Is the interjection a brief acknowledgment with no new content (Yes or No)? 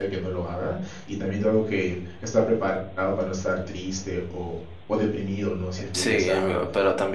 No